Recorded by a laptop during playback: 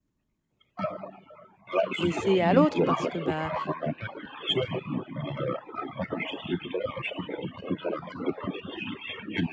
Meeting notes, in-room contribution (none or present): present